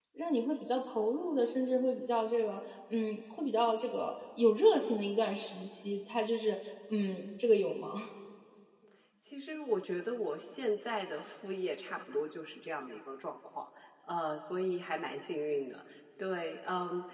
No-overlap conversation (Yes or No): Yes